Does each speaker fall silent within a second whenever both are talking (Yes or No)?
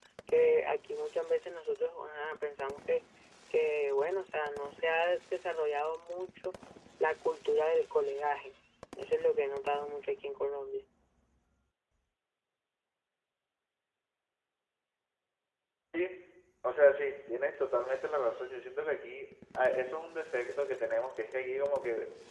Yes